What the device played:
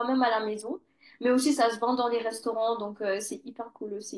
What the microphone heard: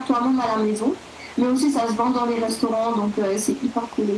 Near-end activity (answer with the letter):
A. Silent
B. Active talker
A